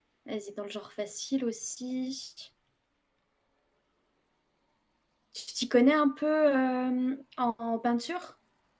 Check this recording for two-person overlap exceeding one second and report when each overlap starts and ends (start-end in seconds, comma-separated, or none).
none